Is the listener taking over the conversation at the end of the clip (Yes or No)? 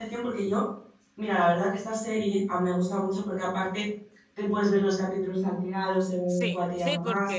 Yes